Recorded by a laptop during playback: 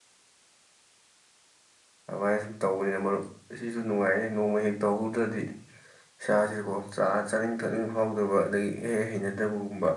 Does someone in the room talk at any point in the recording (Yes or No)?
Yes